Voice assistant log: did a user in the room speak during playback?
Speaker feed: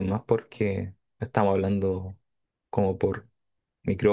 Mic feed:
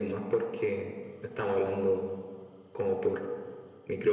No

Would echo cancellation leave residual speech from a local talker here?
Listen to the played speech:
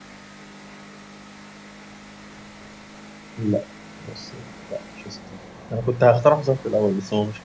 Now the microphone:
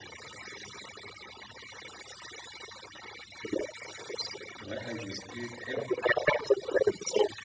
Yes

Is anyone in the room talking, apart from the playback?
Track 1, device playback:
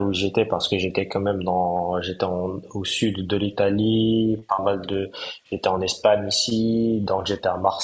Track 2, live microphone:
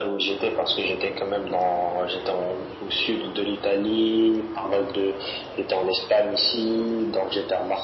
No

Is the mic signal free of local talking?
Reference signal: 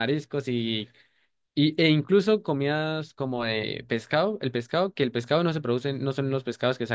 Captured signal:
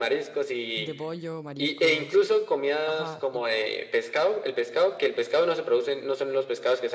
No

